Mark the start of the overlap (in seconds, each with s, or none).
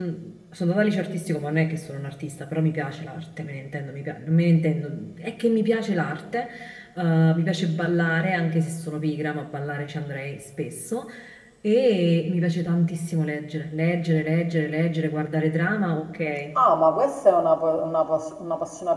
none